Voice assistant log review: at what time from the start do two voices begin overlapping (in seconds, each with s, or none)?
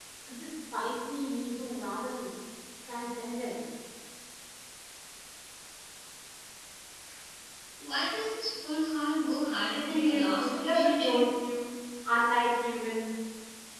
9.9 s